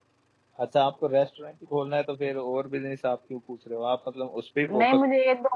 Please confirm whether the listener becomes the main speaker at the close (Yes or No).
Yes